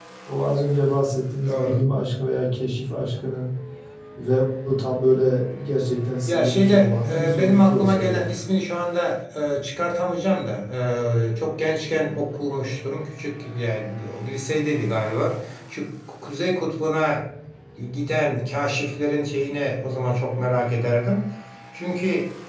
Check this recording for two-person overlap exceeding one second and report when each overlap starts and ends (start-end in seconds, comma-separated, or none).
6.2-8.2